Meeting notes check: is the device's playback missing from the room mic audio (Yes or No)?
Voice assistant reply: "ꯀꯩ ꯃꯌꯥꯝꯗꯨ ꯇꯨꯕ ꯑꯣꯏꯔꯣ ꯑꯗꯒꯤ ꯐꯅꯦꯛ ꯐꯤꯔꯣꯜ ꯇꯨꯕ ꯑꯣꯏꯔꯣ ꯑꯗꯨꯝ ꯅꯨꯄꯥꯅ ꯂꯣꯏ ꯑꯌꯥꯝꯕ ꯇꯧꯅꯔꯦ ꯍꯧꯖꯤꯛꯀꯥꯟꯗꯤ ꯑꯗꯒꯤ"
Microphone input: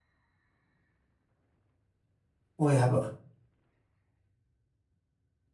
Yes